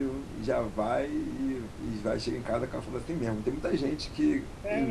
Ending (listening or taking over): listening